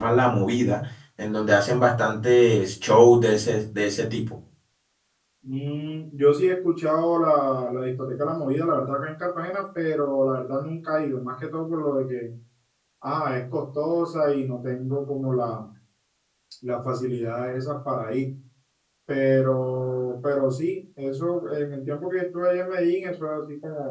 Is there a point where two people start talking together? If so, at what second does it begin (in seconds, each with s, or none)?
none